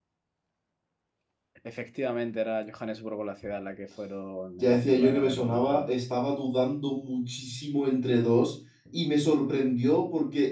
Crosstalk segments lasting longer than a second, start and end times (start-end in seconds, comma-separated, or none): 4.6-5.9